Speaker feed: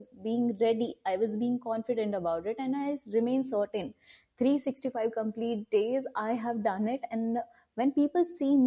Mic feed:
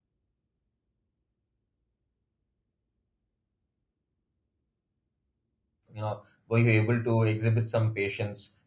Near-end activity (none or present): present